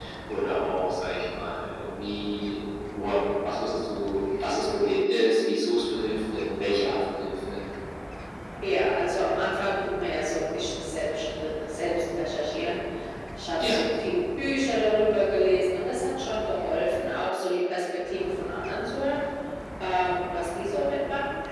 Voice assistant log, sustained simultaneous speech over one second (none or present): none